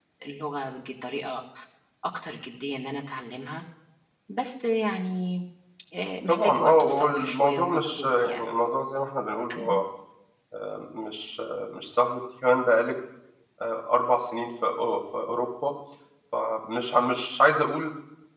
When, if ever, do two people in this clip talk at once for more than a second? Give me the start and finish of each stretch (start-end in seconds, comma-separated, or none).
6.3-8.5